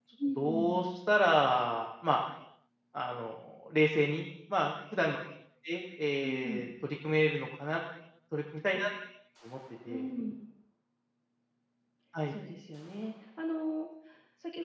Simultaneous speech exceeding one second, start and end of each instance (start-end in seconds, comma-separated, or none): none